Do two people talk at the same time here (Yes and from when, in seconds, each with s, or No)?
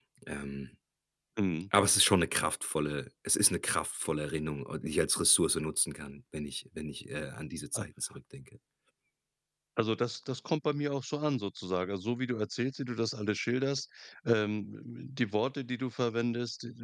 No